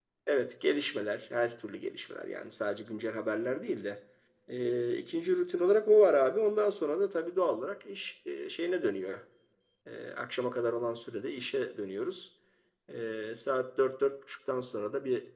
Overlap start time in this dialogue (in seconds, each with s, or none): none